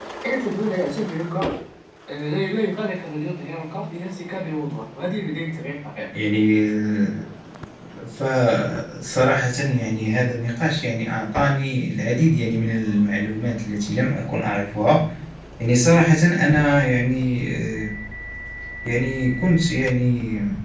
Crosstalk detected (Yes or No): No